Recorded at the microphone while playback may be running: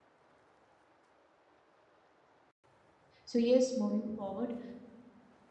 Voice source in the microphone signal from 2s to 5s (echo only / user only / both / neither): user only